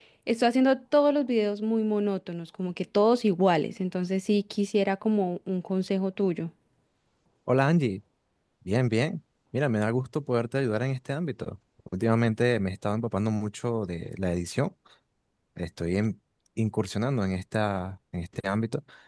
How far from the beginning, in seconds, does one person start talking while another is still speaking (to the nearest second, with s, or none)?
none